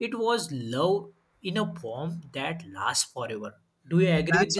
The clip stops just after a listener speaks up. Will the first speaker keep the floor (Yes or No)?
No